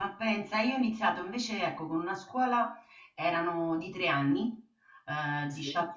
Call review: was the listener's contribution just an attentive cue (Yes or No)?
Yes